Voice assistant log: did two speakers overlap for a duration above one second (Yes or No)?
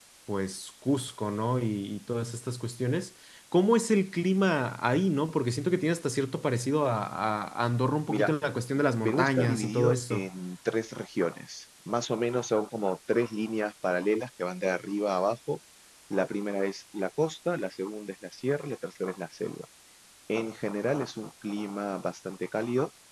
Yes